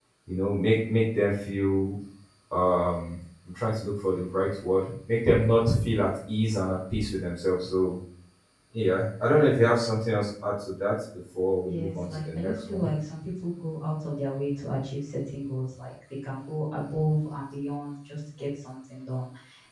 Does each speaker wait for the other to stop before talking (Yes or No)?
No